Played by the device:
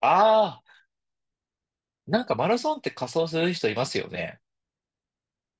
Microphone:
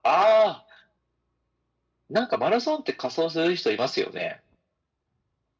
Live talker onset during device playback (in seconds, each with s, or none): none